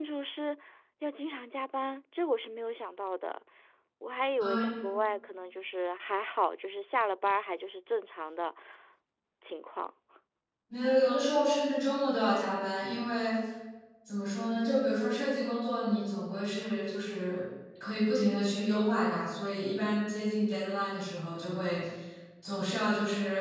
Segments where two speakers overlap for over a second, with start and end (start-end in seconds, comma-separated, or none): none